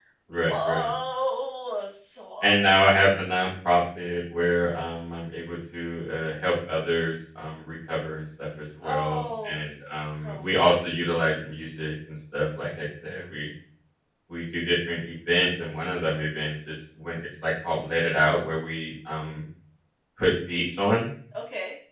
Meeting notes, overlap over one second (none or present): present